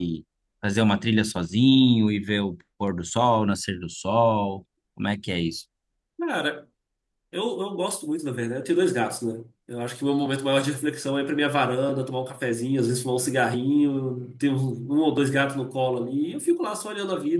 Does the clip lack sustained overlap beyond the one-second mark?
Yes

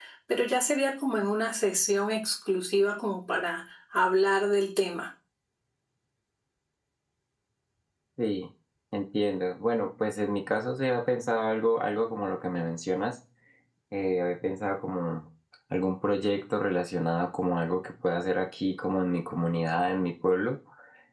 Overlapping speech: No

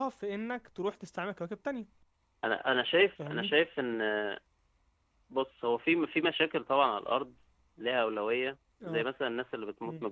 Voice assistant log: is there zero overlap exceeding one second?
Yes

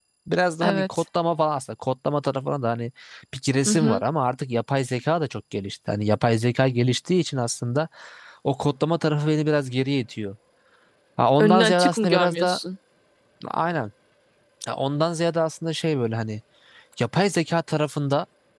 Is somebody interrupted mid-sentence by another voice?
Yes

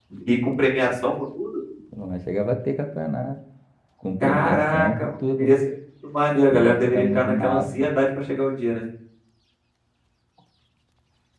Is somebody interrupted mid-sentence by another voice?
Yes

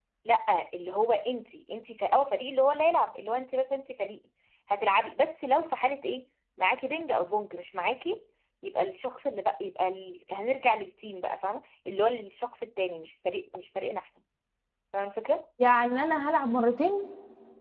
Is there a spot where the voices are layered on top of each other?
No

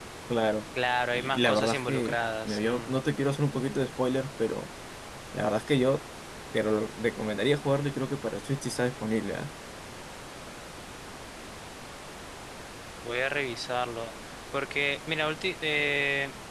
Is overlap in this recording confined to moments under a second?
No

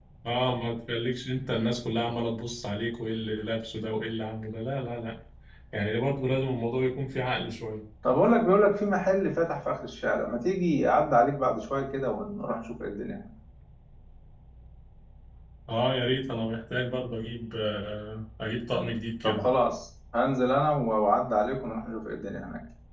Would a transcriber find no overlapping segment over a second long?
Yes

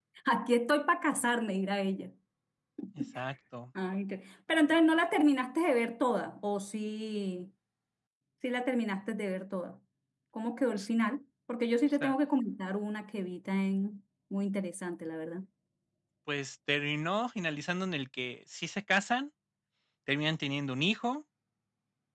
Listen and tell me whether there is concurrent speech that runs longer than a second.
No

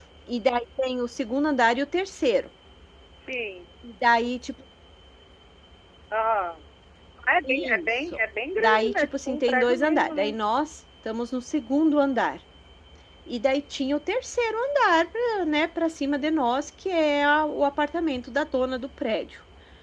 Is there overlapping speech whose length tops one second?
Yes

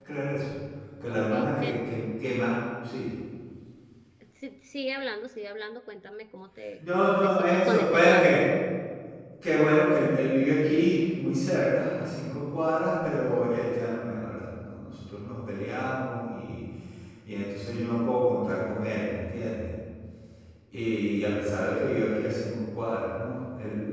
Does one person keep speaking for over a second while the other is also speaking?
Yes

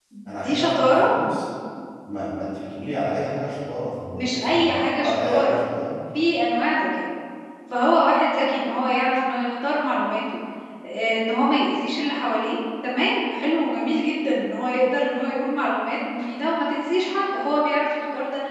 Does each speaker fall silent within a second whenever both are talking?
No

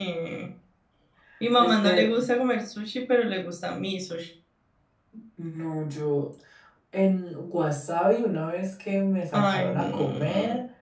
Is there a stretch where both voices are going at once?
Yes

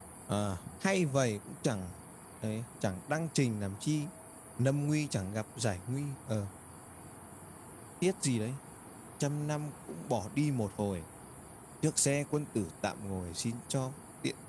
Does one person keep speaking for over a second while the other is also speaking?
No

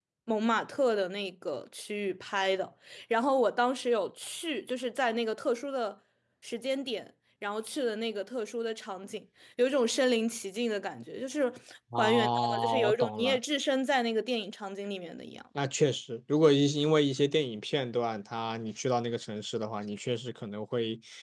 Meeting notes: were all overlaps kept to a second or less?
No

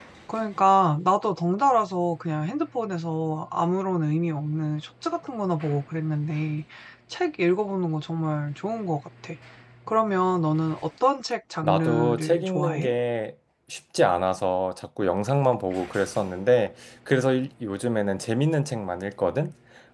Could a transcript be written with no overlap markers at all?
No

